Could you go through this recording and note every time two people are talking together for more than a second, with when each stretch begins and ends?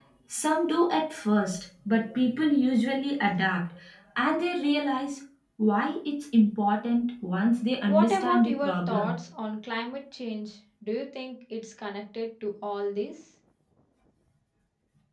7.9-9.1

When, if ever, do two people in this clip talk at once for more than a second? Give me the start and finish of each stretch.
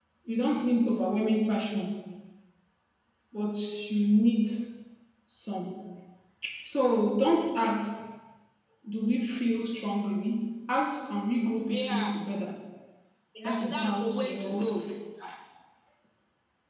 13.4-14.6

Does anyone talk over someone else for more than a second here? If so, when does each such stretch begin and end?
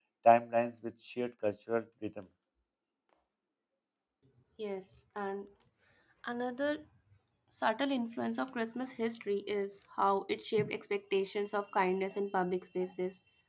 none

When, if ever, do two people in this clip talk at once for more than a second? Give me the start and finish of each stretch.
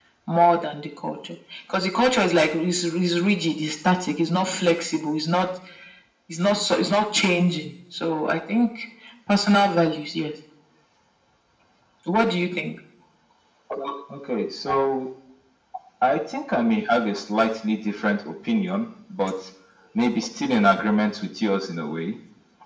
none

